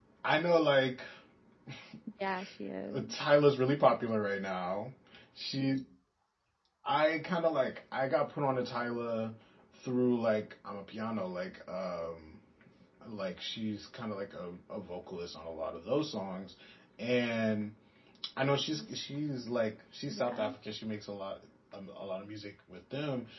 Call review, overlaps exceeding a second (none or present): none